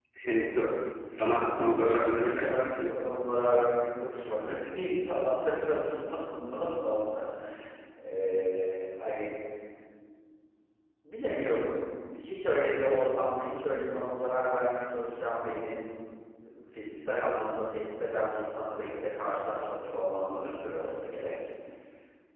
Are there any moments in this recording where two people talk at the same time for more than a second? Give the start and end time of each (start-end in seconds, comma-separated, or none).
1.1-3.0